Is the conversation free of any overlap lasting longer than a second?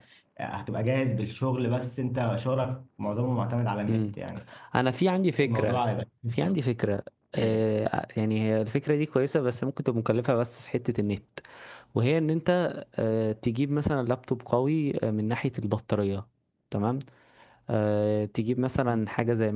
Yes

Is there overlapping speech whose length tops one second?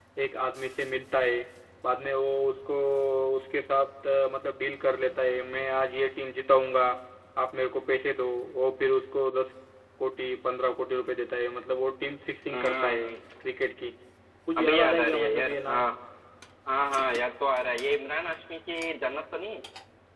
Yes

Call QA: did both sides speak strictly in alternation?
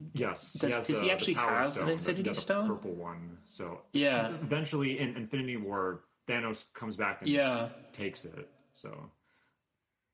No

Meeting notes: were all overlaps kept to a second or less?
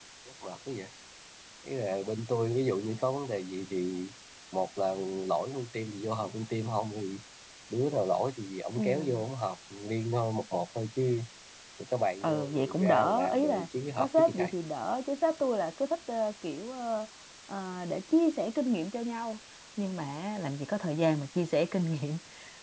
No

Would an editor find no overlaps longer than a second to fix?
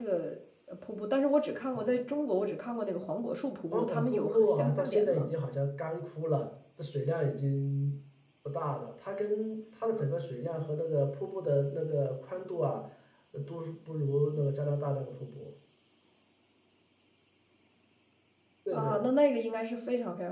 No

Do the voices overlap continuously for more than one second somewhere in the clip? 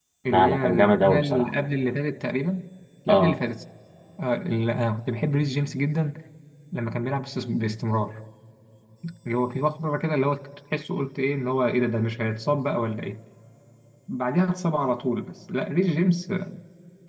Yes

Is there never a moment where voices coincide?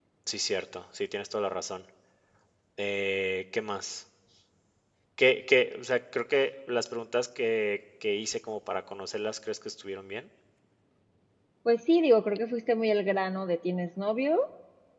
Yes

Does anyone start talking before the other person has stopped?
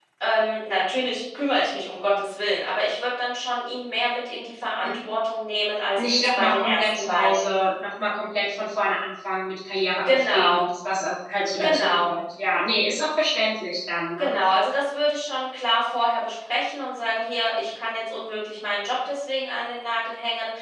Yes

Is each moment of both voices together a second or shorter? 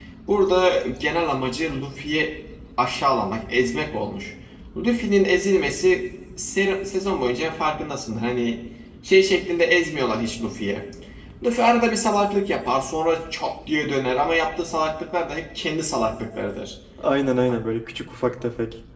Yes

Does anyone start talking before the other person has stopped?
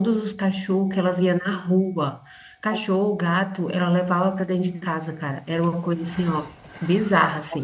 No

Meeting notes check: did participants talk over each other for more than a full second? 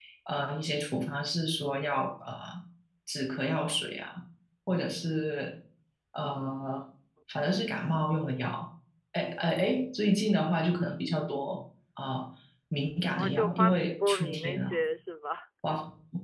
Yes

